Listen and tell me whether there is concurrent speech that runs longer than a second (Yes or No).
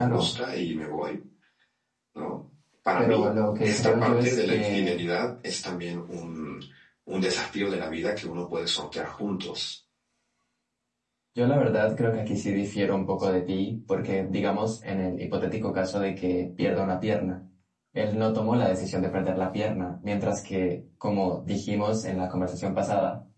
Yes